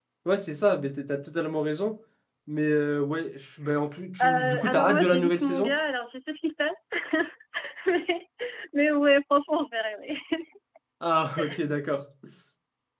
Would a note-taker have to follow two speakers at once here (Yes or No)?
Yes